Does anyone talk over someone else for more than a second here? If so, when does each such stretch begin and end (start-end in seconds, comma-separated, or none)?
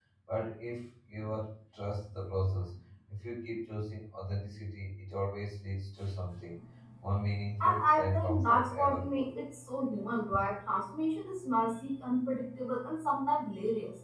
7.6-9.3